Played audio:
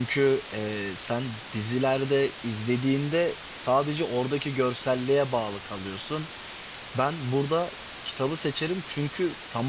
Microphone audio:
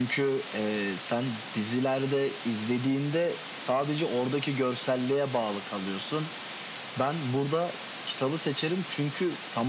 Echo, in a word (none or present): present